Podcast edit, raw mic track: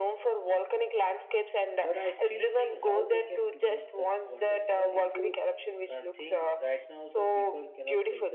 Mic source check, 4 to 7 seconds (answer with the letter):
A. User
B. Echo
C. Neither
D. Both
D